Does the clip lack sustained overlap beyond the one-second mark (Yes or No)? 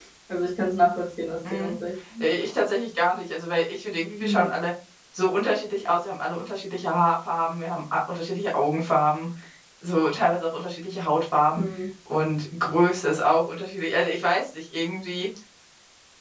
Yes